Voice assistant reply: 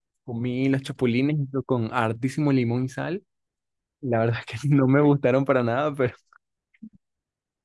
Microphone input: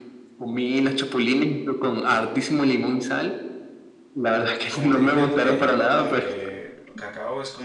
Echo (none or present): present